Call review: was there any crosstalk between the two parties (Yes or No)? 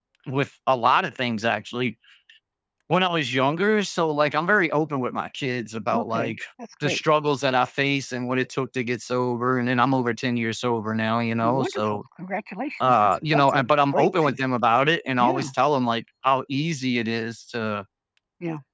Yes